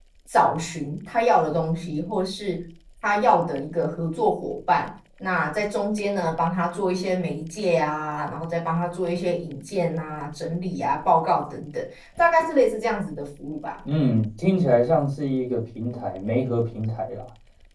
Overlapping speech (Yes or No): No